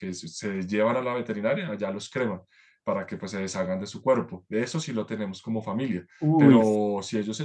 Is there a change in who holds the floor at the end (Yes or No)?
No